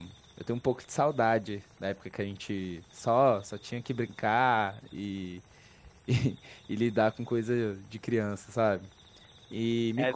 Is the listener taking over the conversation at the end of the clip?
No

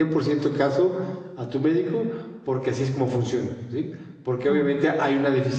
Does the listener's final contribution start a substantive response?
No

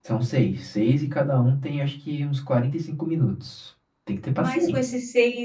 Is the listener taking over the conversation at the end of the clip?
Yes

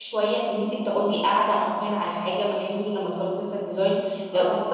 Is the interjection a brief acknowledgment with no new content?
Yes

